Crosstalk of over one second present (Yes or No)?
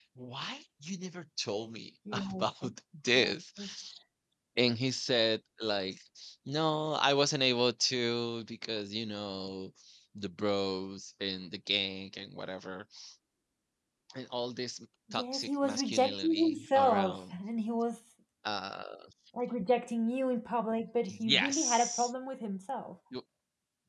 Yes